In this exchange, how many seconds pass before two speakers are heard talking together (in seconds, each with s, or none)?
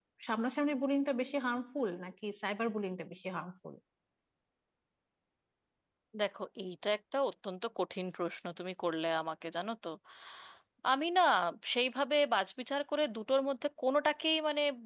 none